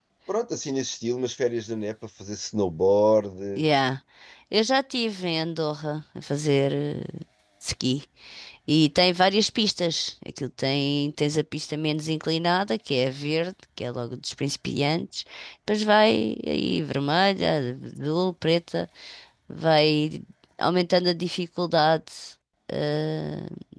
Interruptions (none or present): none